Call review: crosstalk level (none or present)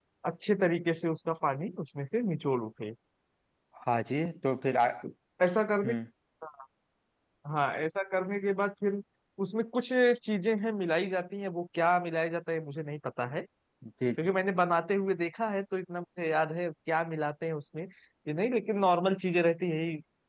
none